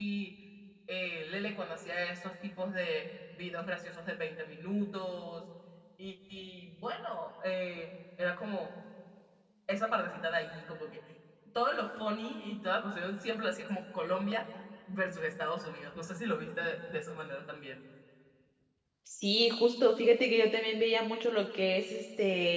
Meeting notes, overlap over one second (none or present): none